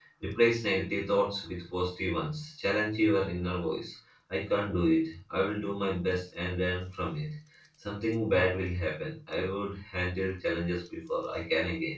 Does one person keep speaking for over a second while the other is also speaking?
No

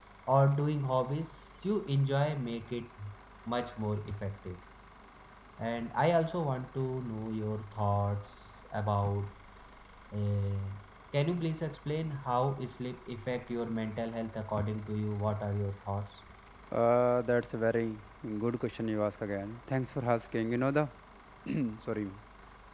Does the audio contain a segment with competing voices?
No

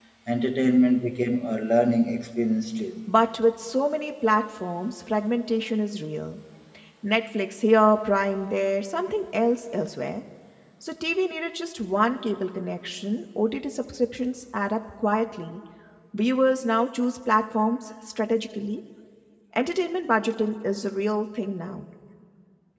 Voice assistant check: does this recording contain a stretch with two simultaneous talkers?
No

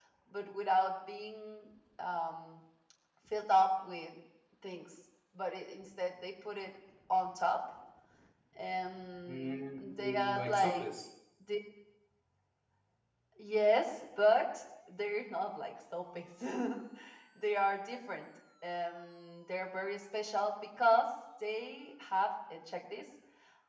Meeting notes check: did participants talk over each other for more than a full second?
Yes, from 9.3 s

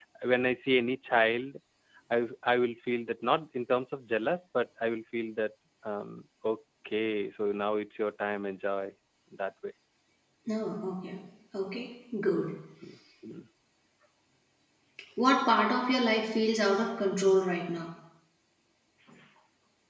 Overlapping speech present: No

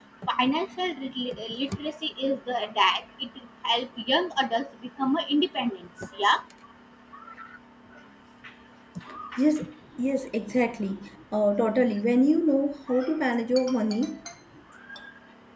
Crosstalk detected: No

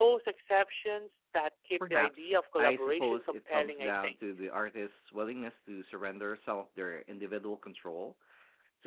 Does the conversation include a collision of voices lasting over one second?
Yes, from 1.8 s

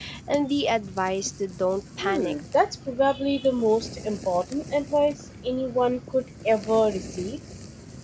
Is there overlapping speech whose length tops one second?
No

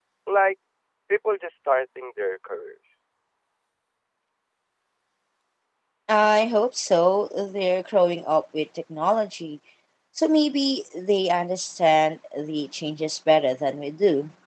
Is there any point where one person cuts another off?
No

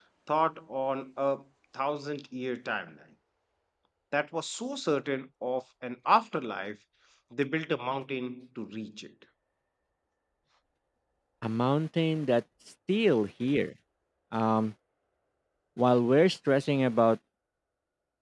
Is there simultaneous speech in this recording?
No

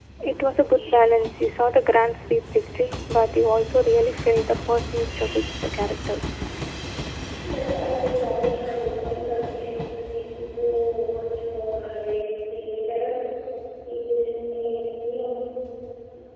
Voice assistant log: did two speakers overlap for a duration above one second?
No

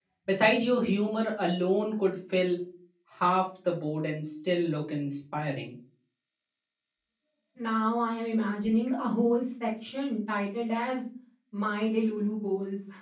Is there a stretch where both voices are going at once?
No

